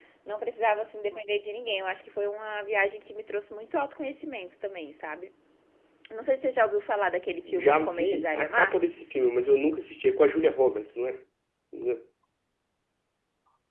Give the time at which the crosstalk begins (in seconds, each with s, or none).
7.5 s